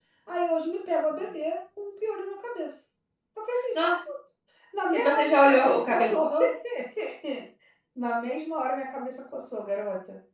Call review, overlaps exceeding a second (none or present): present